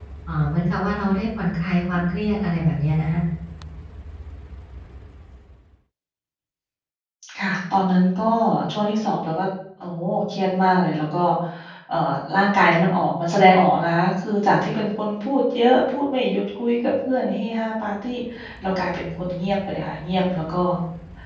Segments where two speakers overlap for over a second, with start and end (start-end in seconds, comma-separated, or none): none